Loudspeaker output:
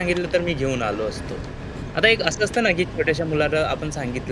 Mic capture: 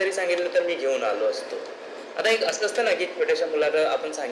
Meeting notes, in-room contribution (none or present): none